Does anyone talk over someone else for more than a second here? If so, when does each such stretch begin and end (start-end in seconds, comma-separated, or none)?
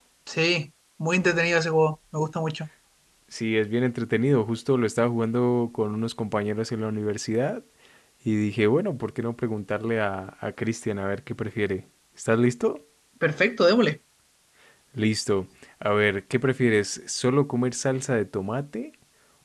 none